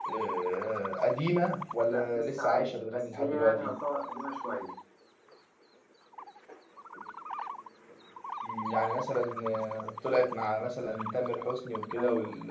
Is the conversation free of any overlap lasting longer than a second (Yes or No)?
No